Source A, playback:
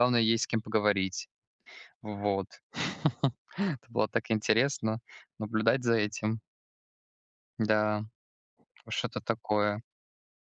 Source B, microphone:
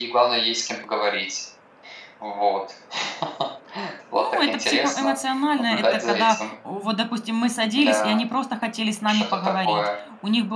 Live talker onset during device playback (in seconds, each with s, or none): 4.1 s